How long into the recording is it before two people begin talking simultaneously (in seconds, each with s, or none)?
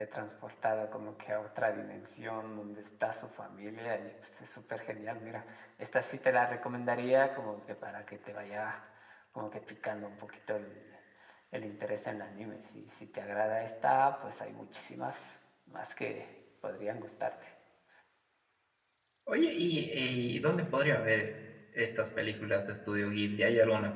none